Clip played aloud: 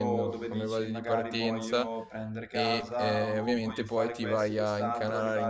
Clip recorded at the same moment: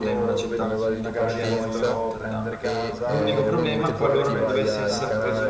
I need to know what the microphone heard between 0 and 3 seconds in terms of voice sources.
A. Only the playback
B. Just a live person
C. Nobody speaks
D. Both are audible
D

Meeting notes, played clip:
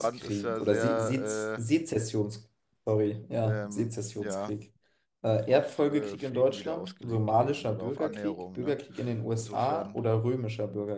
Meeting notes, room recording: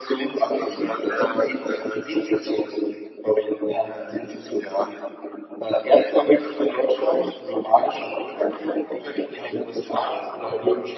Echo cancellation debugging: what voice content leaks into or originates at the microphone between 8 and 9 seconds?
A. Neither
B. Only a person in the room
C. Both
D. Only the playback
D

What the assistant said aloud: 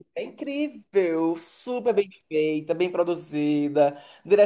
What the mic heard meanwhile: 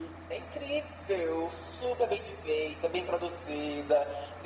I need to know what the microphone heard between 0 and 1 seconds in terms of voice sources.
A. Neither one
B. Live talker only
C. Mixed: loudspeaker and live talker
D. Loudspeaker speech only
D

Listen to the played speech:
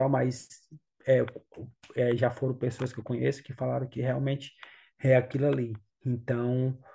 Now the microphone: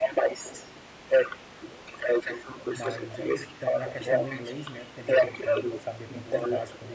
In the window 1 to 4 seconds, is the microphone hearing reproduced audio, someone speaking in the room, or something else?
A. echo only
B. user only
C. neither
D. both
D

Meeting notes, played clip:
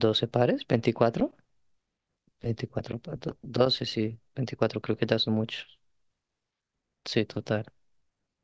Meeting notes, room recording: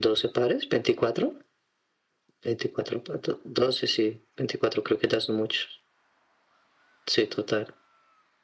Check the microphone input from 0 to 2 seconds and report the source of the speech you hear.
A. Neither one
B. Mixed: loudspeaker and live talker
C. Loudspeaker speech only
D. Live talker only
C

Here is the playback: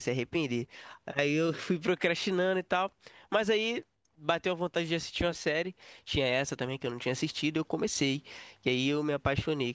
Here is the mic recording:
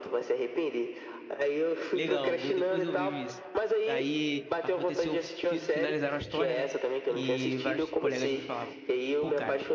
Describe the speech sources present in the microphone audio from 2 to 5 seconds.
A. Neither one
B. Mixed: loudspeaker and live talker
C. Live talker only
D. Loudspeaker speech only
B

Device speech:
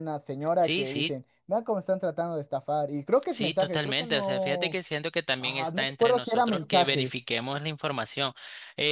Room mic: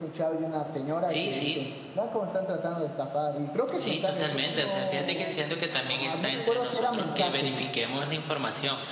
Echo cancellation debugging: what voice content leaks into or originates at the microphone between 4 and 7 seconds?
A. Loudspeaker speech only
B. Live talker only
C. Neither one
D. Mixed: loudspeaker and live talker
D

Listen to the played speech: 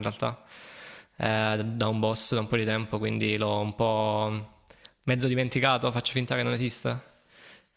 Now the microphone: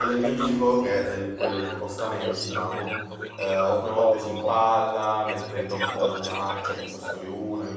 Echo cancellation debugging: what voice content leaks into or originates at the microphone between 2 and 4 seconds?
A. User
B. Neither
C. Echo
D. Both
D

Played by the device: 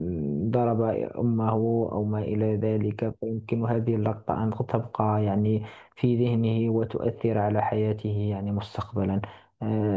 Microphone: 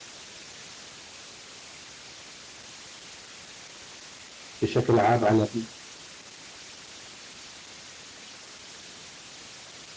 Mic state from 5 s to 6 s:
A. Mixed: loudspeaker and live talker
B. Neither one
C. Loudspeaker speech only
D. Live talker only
D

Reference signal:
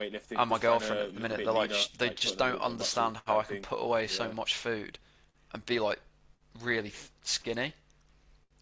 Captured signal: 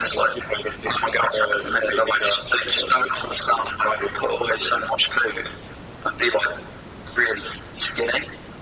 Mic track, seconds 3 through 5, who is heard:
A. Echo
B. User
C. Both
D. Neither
A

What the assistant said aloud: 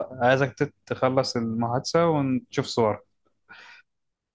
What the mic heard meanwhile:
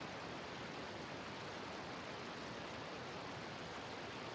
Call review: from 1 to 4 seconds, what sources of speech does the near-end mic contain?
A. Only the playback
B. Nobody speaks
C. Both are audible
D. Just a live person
B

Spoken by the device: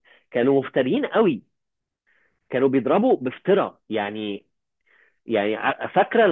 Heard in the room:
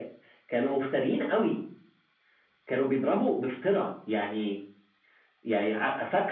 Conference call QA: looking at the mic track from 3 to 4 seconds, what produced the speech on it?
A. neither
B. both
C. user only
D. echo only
D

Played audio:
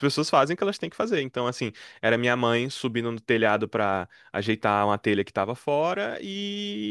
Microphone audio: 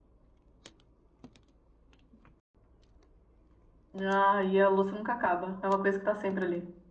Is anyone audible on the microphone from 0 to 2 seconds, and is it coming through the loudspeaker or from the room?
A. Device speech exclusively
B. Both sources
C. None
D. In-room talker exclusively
C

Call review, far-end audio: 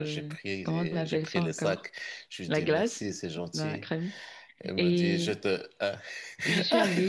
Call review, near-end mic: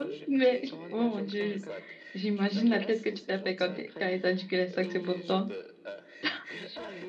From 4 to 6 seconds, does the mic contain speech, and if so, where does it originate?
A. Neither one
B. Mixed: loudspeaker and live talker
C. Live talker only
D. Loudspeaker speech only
B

